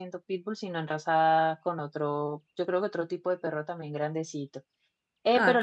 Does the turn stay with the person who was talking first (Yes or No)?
Yes